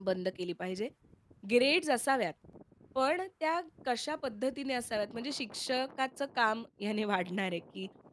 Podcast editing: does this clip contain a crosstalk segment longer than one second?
No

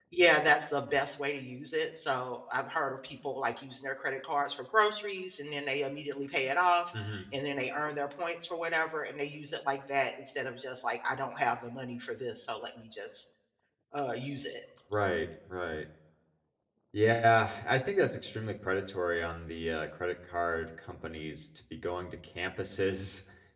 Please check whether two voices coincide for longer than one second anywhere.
No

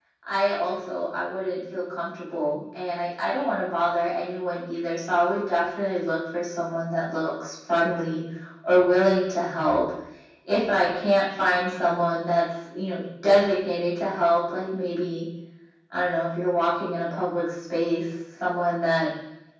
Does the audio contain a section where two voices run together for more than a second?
No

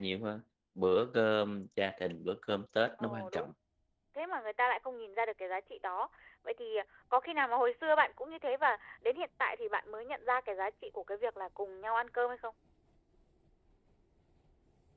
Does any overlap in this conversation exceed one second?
No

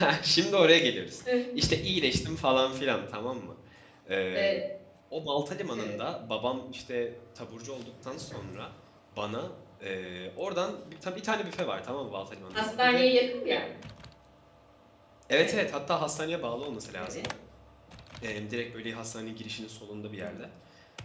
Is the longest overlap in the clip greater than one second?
No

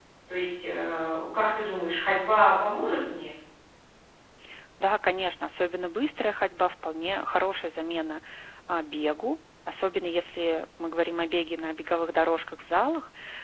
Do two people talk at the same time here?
No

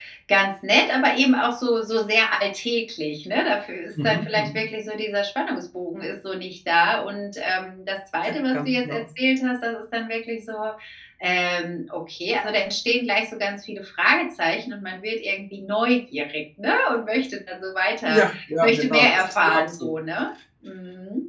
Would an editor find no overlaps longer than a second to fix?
No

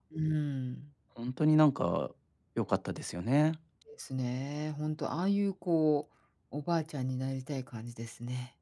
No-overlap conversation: Yes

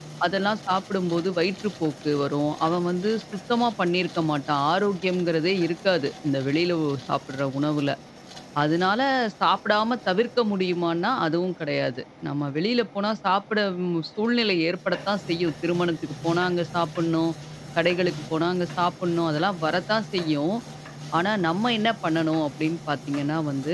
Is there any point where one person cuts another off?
No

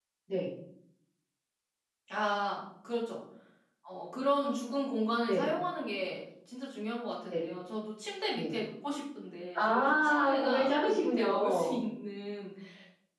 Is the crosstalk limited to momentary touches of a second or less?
No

